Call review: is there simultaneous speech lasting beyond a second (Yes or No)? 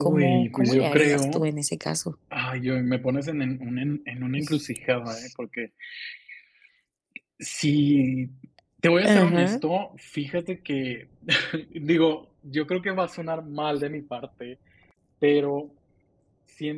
Yes